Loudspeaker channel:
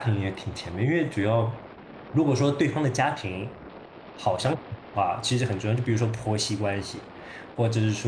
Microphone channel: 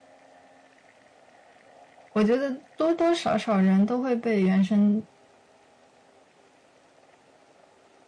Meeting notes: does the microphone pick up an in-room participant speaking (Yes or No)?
Yes